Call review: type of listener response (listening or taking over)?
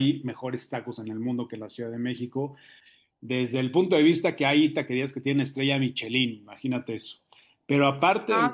listening